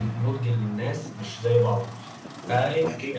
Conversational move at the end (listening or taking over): listening